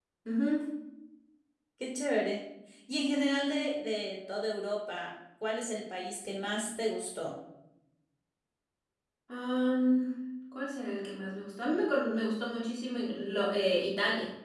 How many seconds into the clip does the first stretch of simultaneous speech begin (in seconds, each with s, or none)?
none